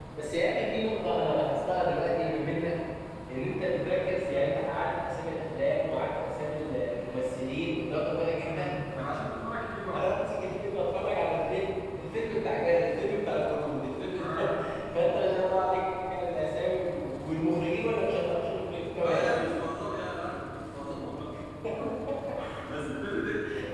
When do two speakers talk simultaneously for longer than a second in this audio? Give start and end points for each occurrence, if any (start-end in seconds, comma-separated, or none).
none